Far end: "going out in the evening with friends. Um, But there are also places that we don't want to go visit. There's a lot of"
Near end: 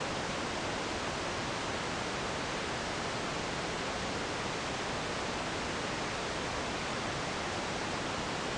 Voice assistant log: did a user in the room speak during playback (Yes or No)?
No